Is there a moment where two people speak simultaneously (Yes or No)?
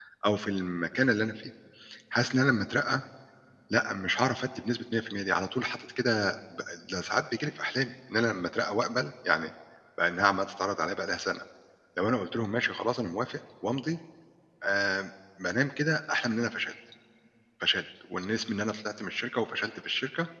No